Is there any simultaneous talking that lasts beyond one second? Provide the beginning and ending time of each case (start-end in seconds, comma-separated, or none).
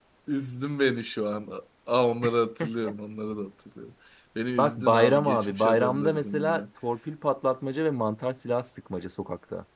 4.6-6.6